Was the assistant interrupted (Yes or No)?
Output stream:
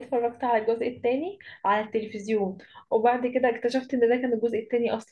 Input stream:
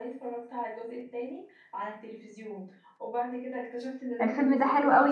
Yes